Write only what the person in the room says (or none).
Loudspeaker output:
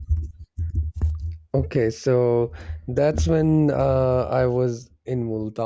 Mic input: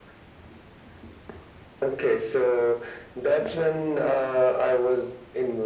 none